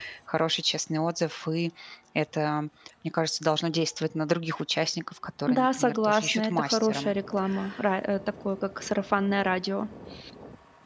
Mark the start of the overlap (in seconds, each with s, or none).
5.5 s